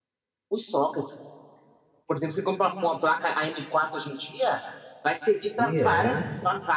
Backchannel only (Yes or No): Yes